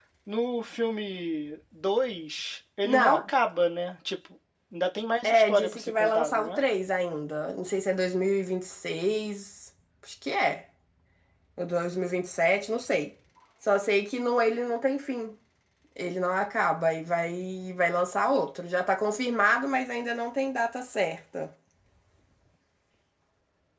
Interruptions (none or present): present